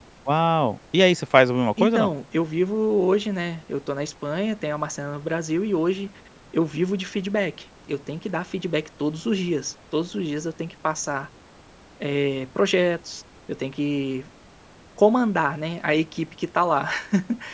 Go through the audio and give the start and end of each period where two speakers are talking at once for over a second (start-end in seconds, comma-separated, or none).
none